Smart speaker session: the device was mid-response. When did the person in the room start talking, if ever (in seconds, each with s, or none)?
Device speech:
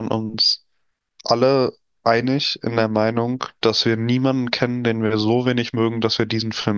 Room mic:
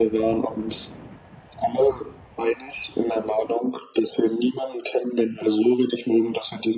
none